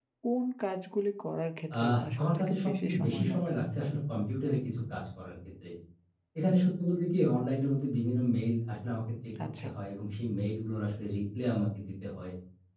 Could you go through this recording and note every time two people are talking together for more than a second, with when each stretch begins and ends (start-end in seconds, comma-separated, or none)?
1.8-3.5